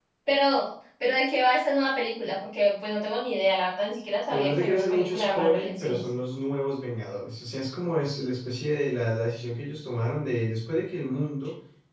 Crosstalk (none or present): present